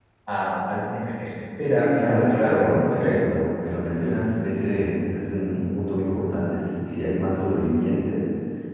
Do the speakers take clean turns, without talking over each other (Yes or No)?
No